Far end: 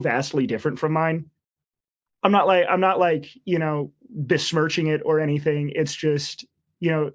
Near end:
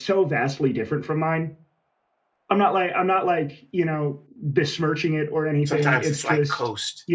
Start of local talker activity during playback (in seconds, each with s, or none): 5.6 s